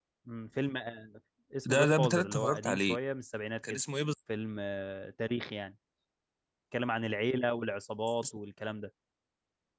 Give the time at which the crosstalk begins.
1.6 s

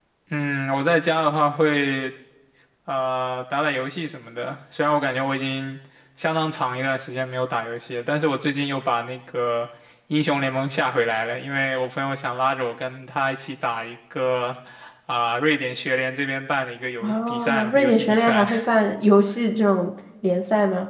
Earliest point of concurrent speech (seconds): 17.0 s

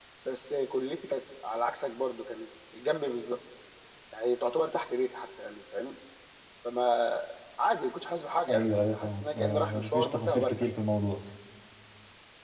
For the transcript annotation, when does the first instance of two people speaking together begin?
8.5 s

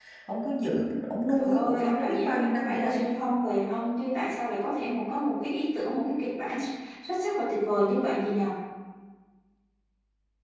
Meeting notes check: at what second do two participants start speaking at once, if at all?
1.4 s

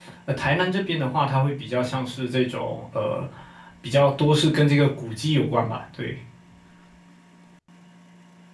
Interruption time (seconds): none

